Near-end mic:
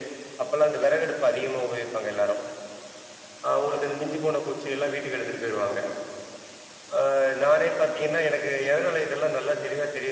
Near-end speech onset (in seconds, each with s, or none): none